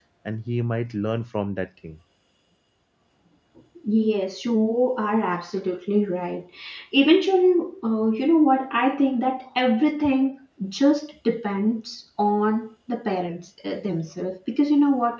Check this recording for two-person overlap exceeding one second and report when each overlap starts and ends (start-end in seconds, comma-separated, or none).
none